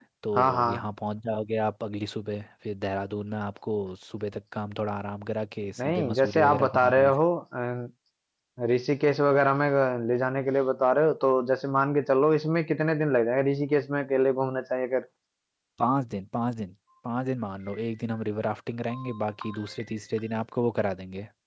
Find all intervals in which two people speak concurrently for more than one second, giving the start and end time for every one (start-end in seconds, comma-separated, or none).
5.8-7.1